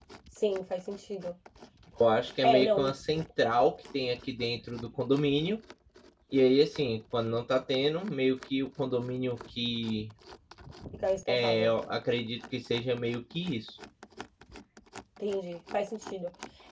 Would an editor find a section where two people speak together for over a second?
No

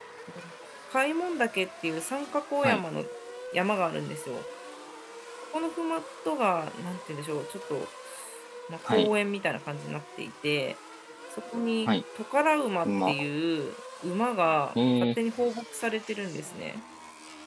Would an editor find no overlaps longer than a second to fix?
Yes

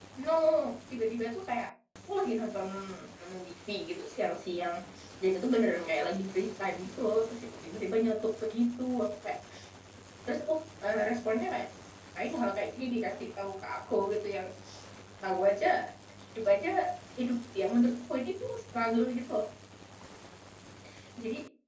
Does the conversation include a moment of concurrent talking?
No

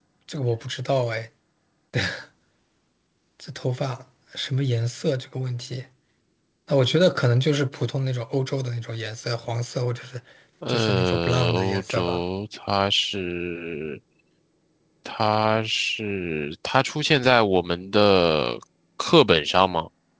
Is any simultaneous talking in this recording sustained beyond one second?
Yes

